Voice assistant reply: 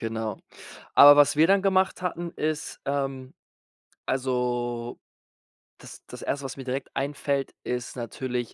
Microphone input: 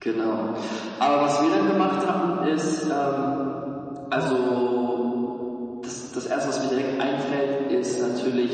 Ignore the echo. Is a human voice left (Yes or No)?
Yes